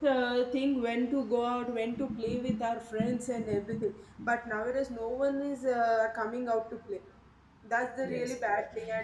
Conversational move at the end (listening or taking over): listening